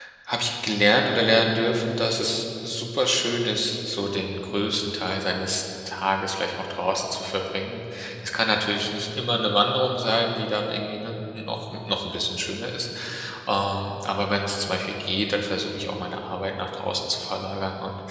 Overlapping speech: No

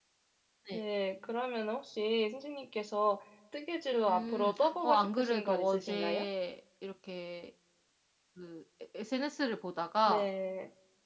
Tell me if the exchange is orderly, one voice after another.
No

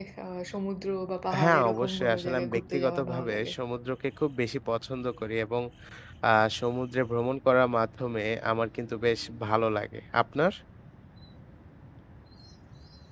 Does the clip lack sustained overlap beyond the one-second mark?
No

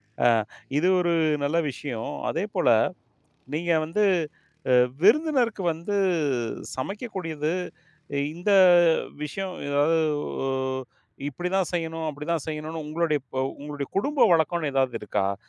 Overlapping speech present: No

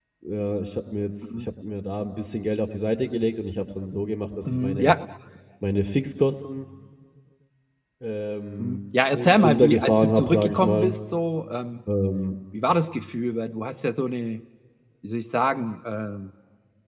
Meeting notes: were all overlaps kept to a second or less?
No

